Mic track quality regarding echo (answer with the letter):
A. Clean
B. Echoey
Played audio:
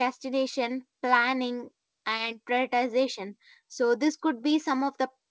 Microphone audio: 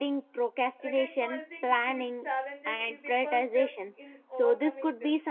B